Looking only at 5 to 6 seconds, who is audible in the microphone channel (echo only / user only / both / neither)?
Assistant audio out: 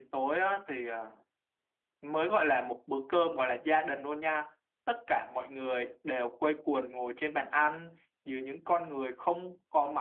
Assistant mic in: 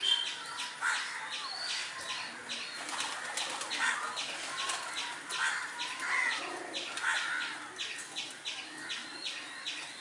neither